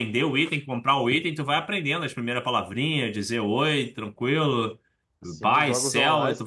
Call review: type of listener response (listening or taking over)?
taking over